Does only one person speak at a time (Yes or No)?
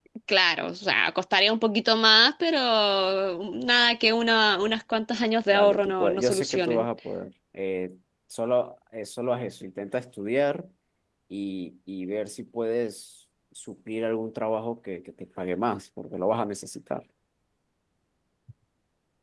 No